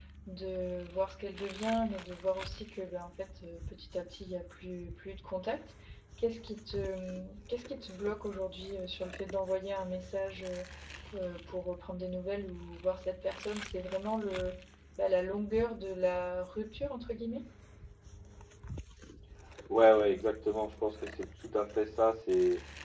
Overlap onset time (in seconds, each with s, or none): none